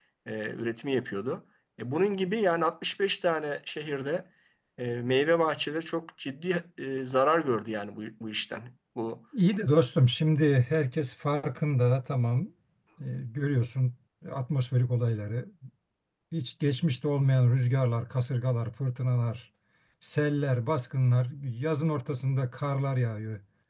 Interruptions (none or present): none